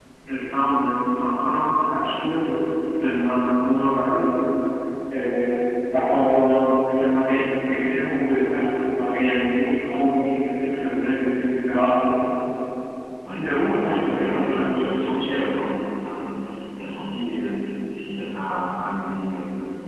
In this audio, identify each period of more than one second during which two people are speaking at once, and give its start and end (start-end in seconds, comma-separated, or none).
13.3-15.4